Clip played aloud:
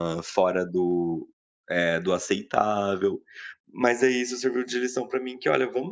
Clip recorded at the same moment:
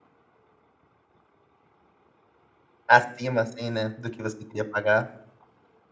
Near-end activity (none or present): present